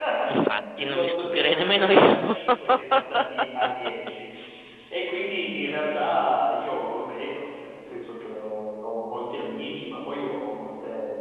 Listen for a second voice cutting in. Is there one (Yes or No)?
Yes